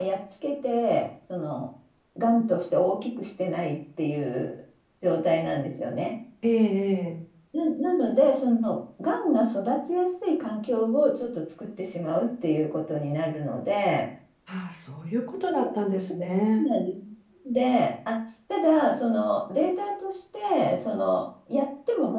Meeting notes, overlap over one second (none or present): none